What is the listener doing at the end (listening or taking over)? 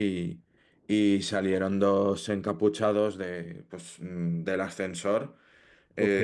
taking over